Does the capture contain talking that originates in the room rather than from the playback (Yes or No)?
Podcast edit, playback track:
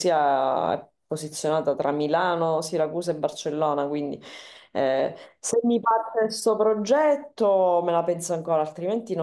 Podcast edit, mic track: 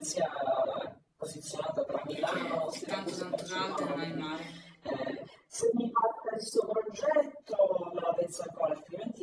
Yes